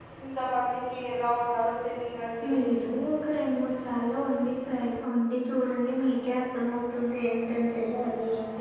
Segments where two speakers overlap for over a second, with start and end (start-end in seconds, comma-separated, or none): none